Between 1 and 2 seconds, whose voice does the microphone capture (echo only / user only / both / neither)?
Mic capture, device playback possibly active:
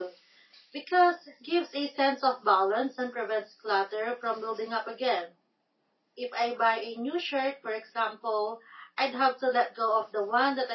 user only